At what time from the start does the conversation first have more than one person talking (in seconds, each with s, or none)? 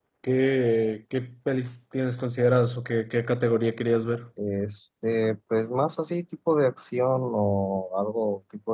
none